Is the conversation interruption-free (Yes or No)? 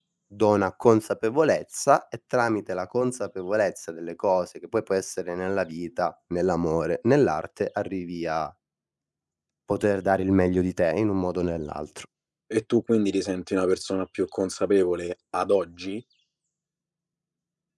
Yes